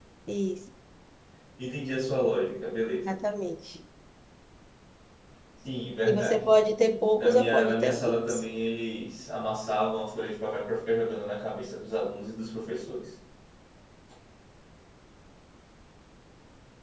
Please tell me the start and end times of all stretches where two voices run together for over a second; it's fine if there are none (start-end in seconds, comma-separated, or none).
7.2-8.4